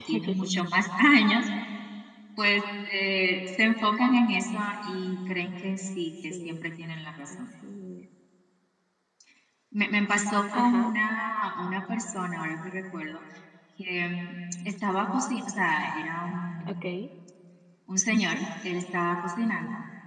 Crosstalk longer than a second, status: none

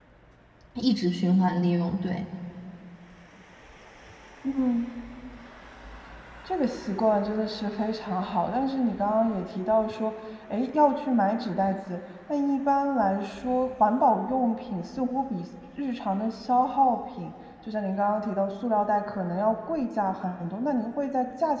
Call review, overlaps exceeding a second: none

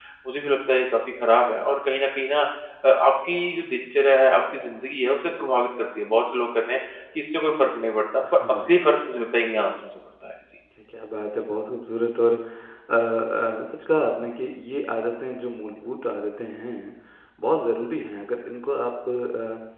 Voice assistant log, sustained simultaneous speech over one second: none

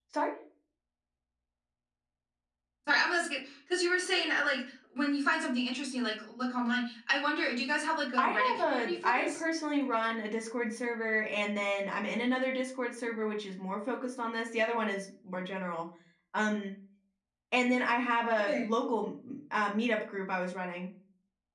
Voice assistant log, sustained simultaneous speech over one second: present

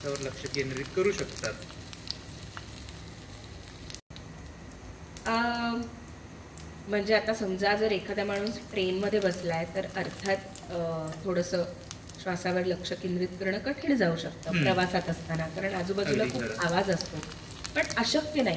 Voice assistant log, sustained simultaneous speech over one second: none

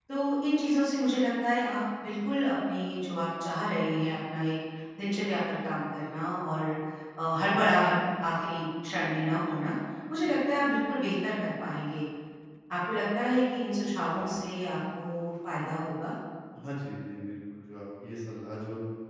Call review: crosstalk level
none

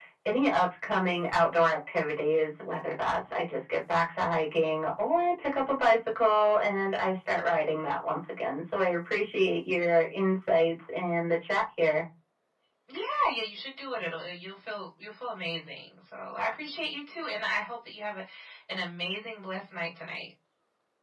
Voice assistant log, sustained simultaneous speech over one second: none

